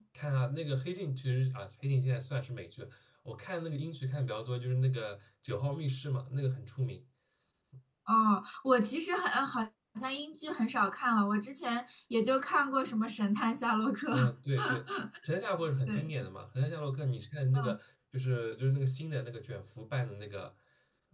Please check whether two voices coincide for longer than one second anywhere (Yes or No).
No